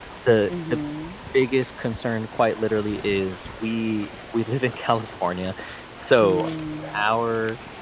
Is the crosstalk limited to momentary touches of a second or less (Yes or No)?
Yes